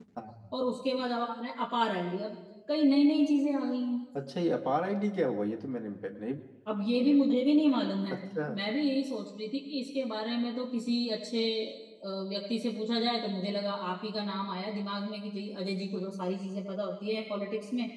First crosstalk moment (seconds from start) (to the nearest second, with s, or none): none